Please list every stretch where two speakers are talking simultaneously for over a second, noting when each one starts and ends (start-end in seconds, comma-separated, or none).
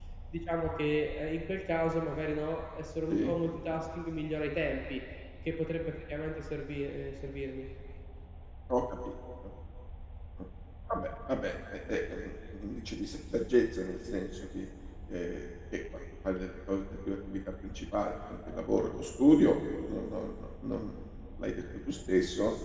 none